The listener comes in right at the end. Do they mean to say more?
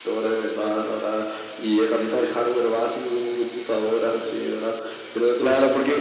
Yes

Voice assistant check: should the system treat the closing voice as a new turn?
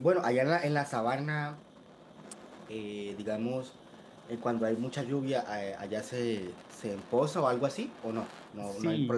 Yes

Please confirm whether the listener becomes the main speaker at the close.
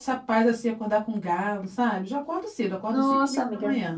No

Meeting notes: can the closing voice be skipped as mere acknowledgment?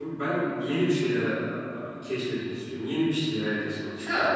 No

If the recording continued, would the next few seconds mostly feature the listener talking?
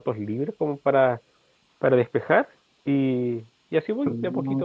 Yes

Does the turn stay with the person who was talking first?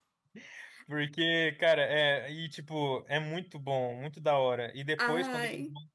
Yes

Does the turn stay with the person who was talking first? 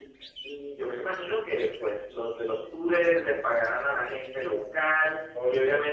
No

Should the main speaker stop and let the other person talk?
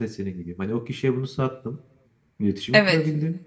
No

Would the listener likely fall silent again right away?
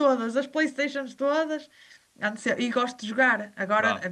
Yes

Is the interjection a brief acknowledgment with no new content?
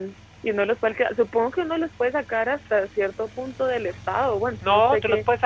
No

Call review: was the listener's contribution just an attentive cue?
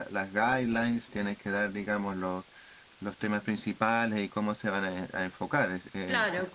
No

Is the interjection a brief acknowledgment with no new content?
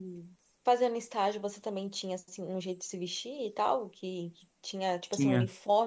Yes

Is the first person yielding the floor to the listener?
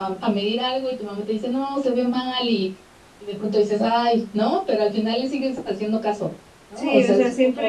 Yes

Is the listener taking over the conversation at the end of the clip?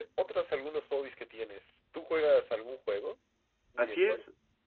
Yes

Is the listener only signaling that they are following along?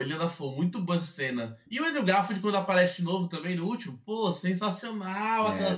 Yes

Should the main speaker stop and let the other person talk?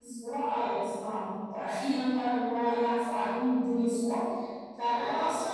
No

